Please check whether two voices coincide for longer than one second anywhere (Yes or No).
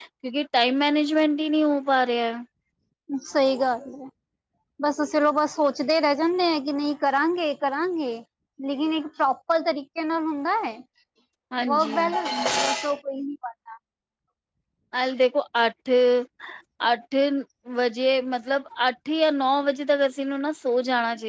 No